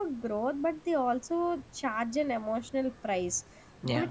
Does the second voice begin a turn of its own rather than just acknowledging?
No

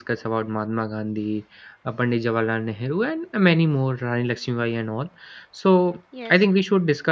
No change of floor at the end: Yes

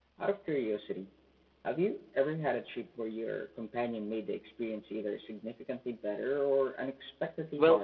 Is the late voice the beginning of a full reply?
Yes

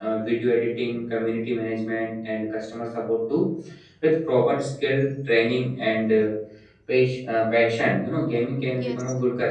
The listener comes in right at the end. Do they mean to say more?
Yes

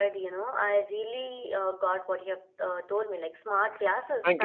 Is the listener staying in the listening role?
Yes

